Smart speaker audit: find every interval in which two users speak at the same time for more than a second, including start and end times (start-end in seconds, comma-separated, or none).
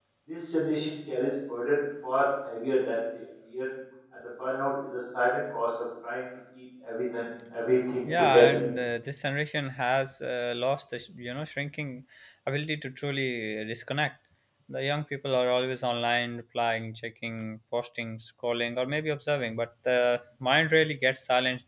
none